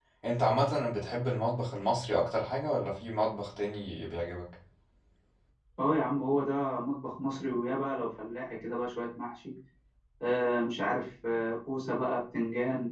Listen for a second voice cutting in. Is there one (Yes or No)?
No